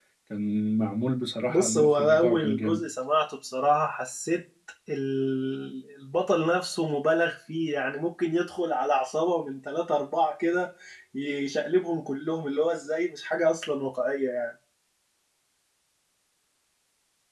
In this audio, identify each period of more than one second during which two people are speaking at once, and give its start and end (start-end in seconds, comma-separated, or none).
1.5-2.8